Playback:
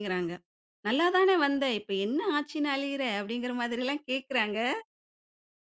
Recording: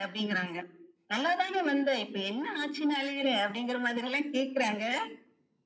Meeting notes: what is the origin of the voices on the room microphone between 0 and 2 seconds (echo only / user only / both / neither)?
echo only